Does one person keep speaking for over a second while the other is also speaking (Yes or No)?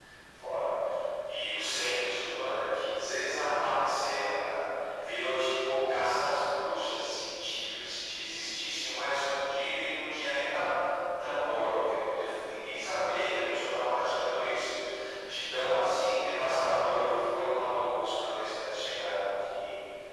No